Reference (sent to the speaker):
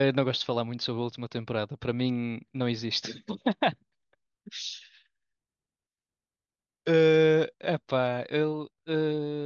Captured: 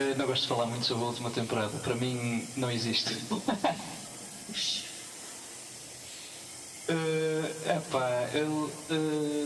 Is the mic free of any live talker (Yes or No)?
Yes